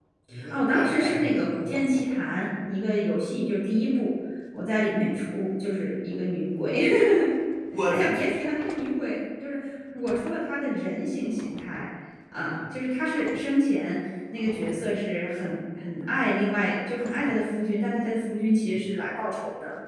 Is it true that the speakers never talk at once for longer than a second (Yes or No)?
No